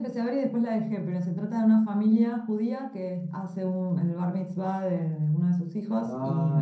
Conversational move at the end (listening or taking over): listening